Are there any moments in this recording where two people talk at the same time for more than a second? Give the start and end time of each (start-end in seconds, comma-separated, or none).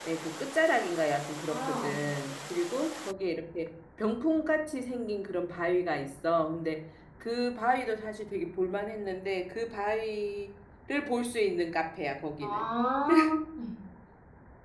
none